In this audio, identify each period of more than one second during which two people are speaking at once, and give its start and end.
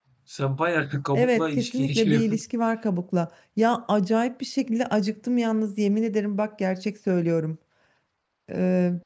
1.1-2.4

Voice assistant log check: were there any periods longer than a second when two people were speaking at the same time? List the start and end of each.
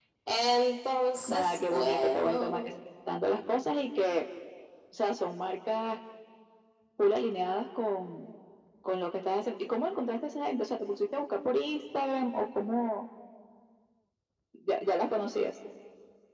1.3-2.7

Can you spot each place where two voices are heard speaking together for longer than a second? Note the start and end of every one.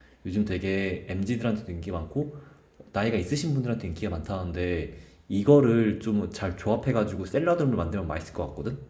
none

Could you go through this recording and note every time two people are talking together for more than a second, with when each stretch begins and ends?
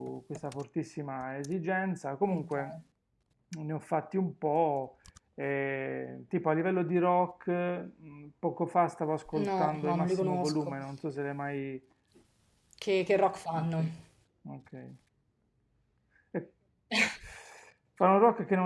9.5-10.7

